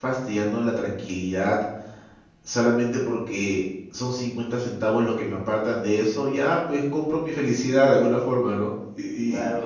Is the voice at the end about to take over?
Yes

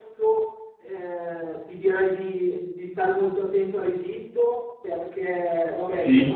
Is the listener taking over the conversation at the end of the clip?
No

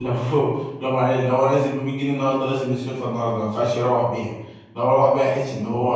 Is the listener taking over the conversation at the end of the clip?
No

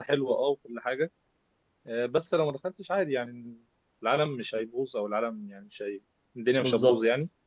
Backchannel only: Yes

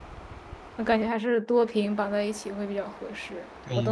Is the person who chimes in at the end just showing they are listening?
No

